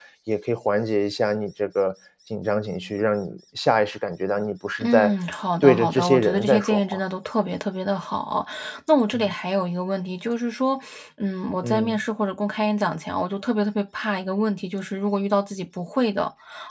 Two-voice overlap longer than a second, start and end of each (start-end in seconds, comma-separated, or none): 5.6-7.0